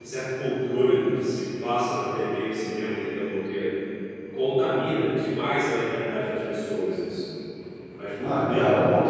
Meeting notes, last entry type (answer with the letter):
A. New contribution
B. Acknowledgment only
A